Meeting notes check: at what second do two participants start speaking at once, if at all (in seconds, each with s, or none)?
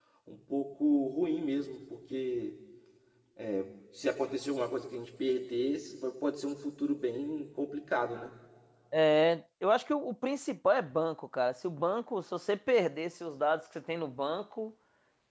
none